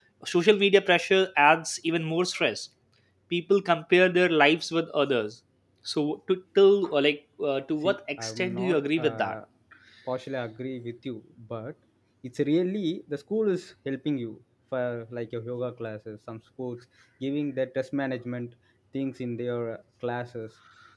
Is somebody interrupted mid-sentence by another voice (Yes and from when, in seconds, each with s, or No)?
Yes, from 7.8 s